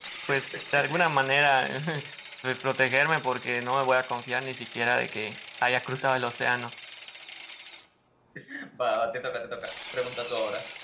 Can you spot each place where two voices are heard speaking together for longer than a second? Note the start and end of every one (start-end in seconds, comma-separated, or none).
none